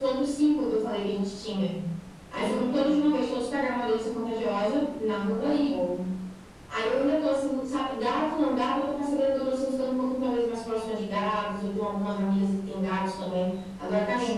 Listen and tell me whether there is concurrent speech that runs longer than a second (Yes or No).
No